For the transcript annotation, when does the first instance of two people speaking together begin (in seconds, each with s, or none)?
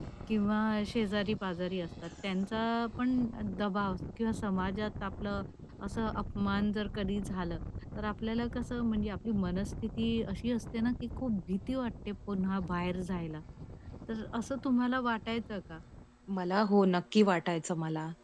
none